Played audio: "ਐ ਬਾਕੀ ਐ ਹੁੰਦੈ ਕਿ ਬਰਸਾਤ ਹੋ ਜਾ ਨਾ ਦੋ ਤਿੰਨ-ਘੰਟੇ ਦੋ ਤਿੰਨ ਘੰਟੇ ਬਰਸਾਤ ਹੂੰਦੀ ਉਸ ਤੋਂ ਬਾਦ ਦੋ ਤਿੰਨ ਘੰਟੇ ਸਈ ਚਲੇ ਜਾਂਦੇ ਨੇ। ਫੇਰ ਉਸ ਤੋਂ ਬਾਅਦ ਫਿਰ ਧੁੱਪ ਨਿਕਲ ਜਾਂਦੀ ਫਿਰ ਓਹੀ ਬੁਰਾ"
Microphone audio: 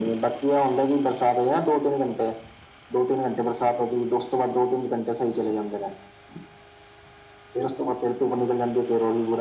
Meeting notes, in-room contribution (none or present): none